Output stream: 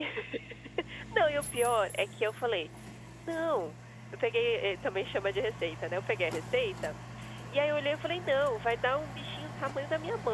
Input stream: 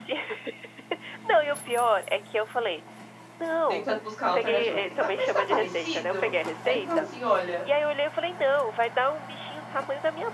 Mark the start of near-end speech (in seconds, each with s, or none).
3.7 s